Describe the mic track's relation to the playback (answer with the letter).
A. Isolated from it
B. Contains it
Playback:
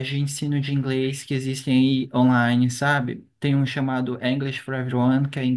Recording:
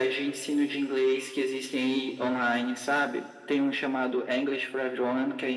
B